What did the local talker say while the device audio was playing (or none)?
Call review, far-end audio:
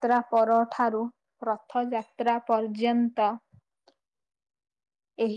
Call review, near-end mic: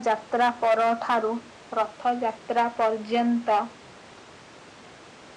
none